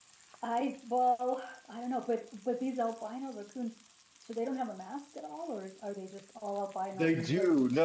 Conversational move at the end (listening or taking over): taking over